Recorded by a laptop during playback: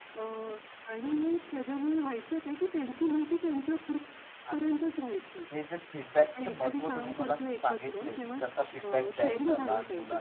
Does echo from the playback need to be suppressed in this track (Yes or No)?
Yes